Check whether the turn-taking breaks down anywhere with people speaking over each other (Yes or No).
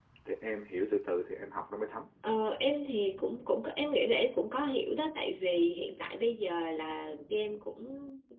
No